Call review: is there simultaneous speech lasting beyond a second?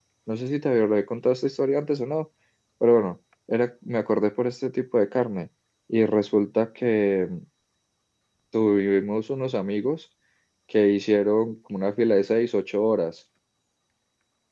No

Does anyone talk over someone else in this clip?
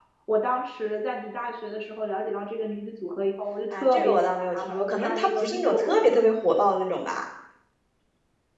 Yes, from 3.7 s

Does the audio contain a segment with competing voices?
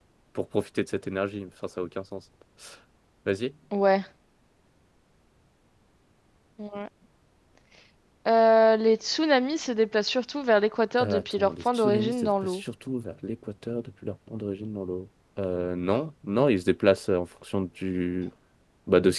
Yes, from 11.0 s

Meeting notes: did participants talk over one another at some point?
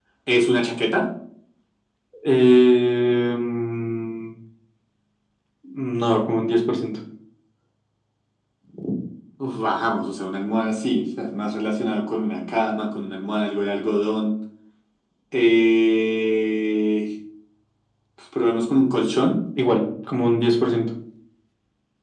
No

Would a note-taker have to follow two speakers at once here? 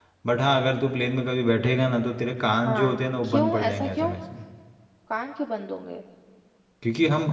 Yes, from 2.6 s

